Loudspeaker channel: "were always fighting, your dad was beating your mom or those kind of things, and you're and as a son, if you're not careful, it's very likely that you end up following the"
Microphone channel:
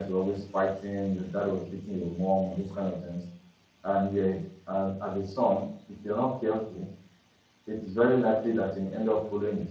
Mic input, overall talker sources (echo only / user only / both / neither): echo only